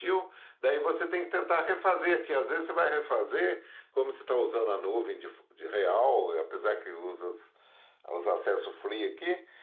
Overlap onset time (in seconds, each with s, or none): none